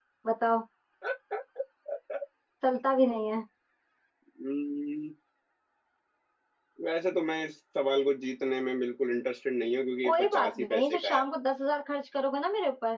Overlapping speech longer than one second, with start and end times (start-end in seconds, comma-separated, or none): 10.0-11.2